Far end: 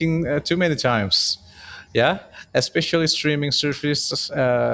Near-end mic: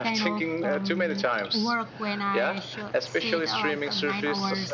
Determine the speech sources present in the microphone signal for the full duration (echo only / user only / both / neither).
both